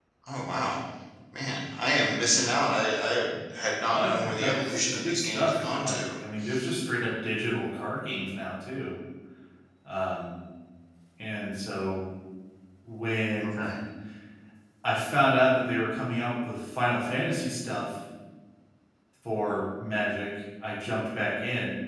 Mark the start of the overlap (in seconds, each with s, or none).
3.9 s